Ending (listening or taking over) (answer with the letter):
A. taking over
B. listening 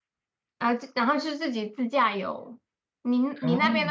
B